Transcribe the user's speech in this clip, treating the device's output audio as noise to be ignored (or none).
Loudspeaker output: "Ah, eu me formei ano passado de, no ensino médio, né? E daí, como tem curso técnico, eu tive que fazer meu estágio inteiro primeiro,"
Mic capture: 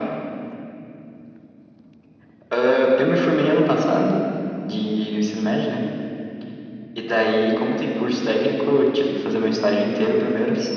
none